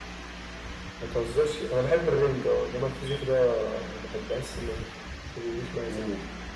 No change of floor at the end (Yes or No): No